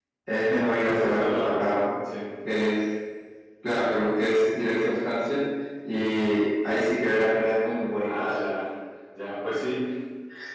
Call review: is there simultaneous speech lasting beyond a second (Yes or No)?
Yes